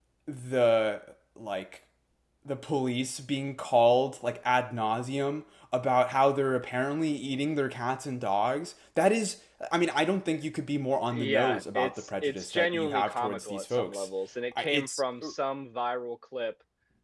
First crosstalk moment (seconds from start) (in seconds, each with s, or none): 11.1 s